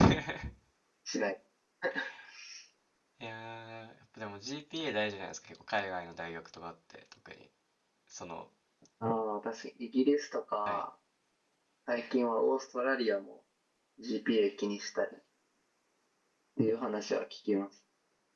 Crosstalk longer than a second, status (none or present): none